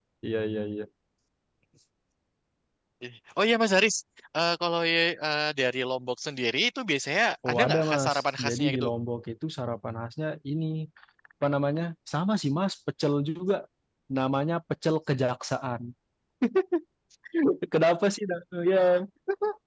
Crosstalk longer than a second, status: present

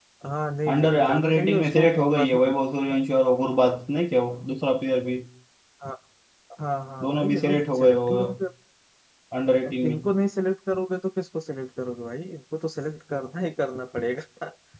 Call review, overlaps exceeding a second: present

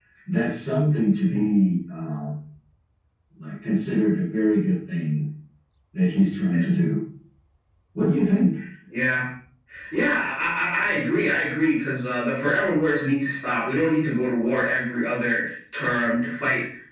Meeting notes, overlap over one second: none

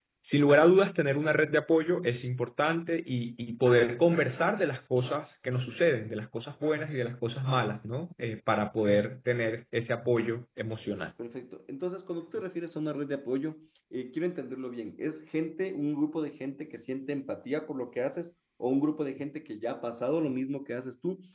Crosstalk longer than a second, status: none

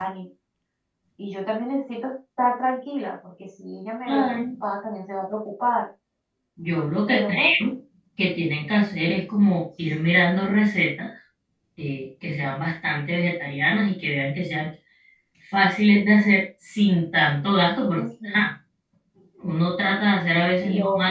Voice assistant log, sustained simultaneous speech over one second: none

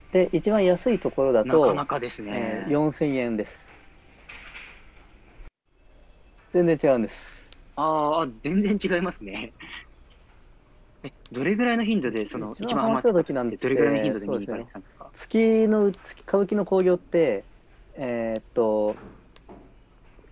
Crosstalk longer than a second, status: present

